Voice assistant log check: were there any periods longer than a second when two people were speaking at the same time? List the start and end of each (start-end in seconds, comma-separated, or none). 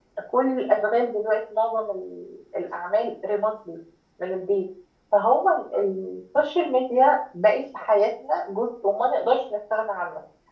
none